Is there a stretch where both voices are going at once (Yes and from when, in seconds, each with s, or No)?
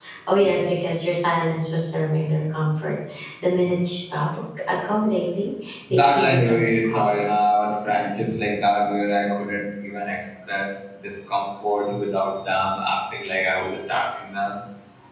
Yes, from 5.9 s